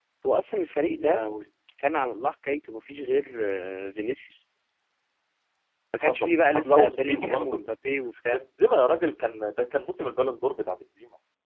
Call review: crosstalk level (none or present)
present